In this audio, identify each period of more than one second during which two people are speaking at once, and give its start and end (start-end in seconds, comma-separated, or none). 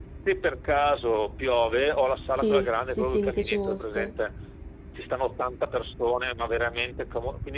2.4-4.1